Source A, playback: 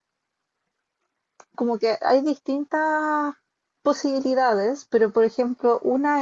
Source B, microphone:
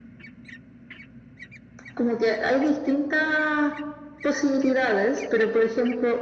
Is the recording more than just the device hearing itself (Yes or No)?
No